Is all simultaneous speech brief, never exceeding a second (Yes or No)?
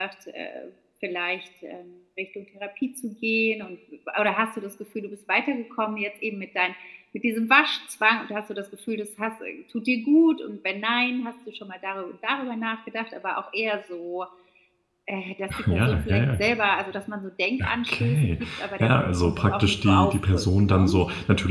No